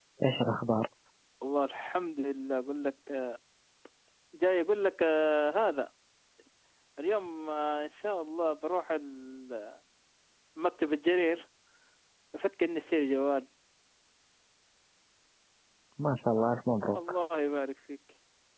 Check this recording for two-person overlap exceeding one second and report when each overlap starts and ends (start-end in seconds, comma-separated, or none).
none